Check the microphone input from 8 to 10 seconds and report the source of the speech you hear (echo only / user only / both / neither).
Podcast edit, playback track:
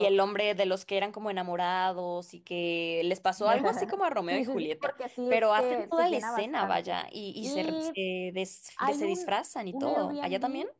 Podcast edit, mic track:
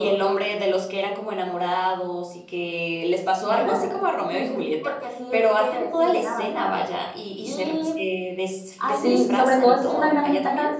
both